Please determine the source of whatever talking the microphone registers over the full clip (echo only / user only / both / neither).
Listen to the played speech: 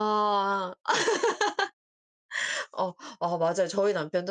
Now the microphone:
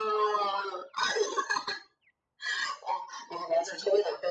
echo only